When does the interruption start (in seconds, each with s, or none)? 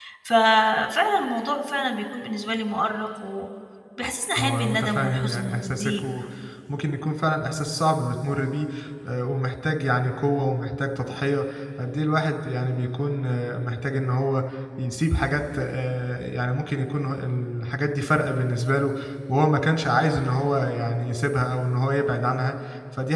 4.4 s